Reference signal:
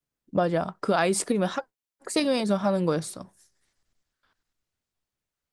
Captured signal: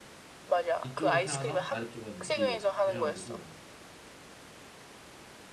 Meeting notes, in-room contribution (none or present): present